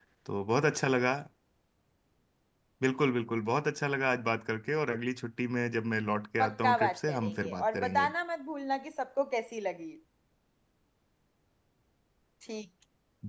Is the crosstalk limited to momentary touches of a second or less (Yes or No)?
No